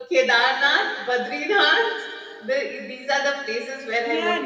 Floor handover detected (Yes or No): Yes